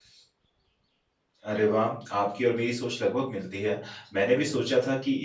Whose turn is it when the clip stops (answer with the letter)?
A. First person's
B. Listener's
A